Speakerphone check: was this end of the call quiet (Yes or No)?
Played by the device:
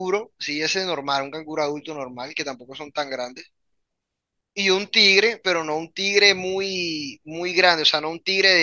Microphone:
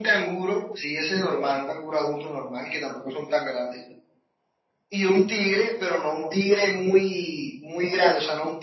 Yes